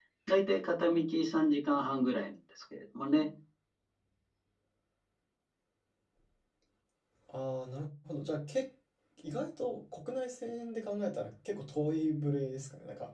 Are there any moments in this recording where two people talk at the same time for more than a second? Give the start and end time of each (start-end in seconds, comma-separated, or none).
none